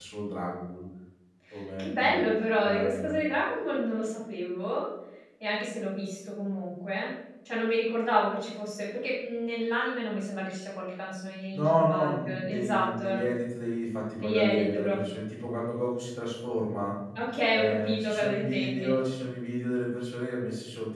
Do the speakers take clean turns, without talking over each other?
No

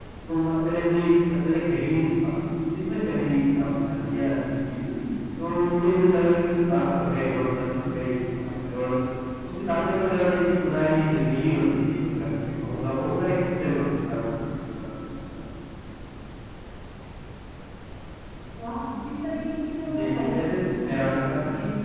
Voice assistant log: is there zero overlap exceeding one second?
Yes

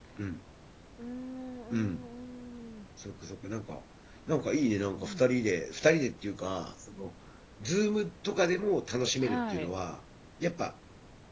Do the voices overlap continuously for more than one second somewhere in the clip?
No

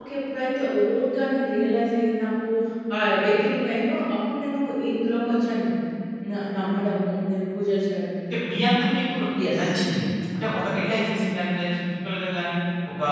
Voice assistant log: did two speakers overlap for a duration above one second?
No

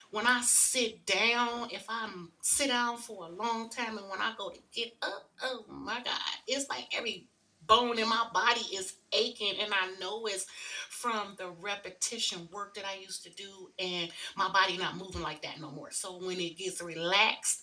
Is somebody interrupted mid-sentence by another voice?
No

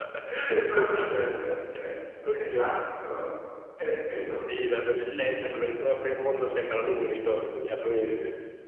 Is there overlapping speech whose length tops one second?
Yes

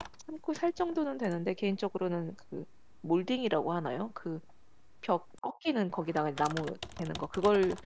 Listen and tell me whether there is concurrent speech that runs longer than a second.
No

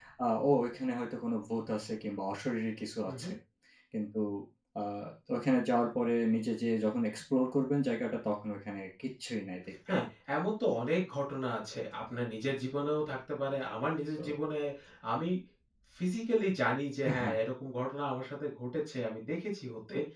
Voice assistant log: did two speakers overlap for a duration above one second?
No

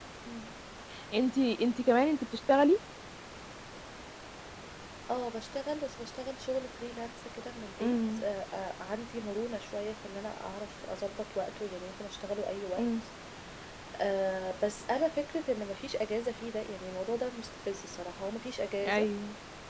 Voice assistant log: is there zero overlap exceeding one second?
Yes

